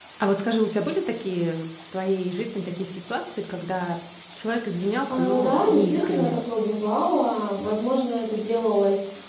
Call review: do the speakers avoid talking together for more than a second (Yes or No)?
No